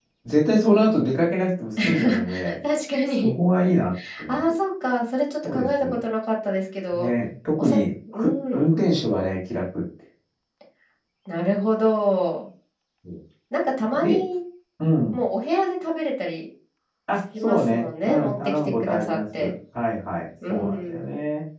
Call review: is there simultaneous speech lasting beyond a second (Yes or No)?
Yes